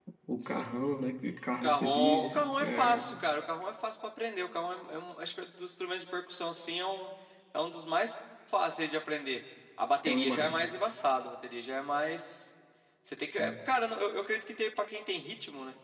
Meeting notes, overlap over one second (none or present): present